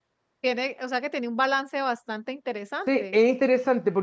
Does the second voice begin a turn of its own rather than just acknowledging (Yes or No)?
Yes